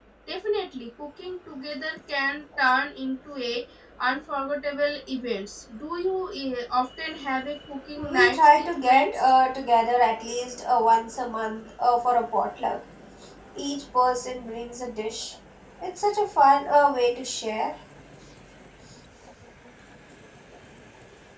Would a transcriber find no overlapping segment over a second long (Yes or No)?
No